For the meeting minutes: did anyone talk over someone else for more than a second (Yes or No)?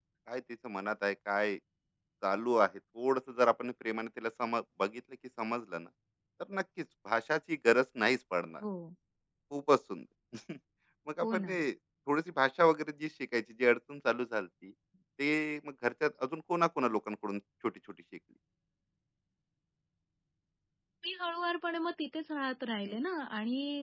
No